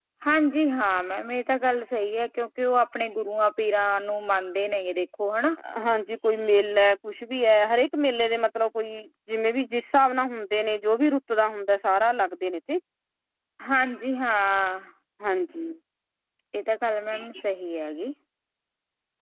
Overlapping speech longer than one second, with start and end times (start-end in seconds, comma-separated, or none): none